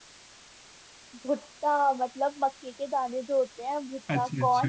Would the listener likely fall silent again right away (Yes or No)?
No